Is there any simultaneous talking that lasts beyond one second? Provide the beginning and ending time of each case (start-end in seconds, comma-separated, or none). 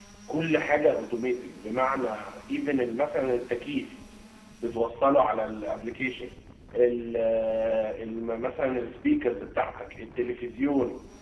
none